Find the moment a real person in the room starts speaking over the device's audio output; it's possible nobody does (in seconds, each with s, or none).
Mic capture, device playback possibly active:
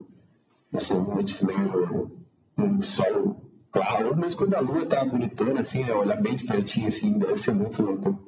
none